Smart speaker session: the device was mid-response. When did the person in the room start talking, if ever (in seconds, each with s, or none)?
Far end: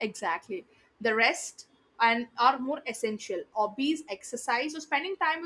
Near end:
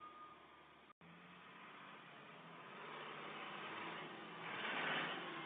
none